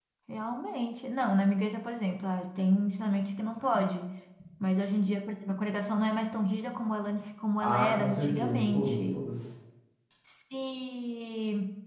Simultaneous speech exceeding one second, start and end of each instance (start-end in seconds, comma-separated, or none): 7.6-9.2